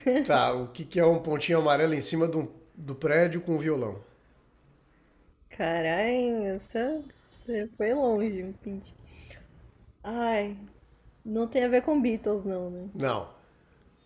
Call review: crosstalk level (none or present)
none